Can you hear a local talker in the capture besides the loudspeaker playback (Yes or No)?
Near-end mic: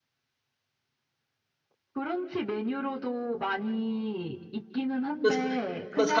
Yes